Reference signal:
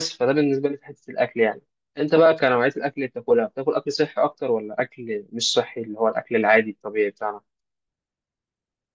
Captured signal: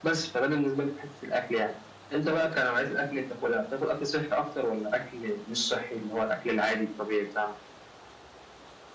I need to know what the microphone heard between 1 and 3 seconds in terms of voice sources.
echo only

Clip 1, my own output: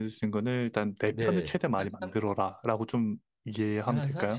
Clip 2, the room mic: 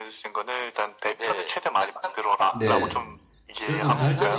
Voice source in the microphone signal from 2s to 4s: both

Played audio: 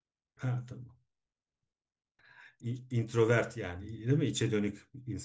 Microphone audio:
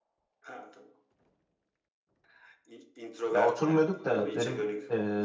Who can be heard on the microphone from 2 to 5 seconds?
both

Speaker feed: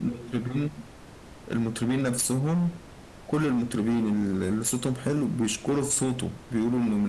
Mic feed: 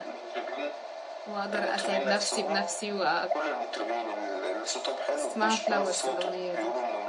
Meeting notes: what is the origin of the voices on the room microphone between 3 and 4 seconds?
both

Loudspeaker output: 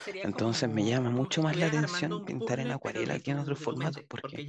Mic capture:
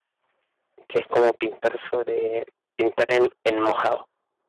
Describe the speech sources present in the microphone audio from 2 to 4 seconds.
user only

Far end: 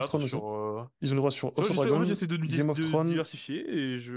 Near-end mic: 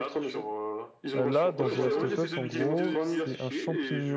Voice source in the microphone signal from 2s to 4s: both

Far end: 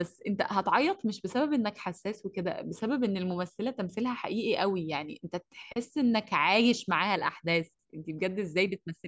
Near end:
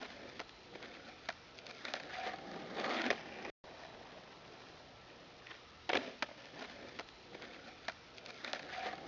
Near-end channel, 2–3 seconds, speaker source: neither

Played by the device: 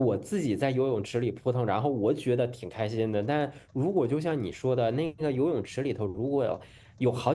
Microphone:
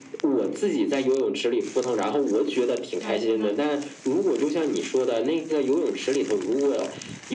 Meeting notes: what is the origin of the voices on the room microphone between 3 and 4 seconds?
both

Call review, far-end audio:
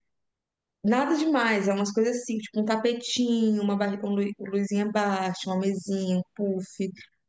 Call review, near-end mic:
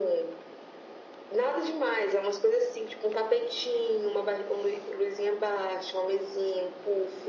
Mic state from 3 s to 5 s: echo only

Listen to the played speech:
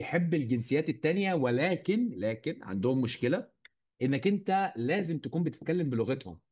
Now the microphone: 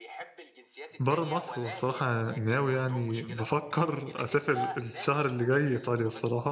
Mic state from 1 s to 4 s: both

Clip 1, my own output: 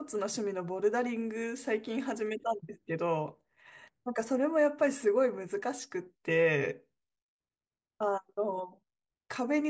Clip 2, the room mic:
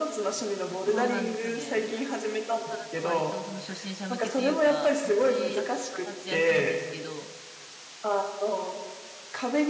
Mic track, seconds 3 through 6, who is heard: both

